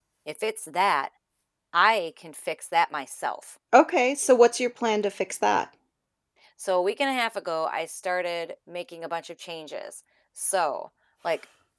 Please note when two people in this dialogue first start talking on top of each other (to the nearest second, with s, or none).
none